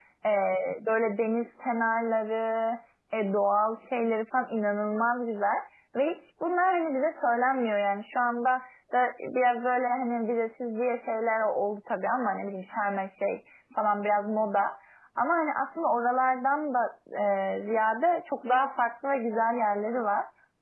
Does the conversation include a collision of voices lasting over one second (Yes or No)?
No